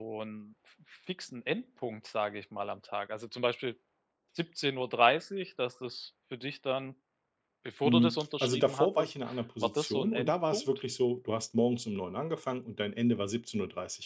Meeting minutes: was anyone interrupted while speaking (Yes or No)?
Yes